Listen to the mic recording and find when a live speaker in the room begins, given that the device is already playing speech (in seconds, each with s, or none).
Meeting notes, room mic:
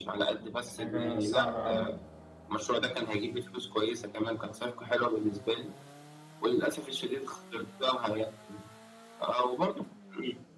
0.7 s